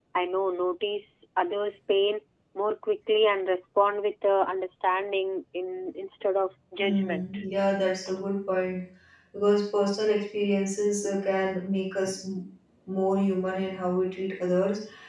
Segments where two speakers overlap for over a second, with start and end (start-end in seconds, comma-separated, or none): none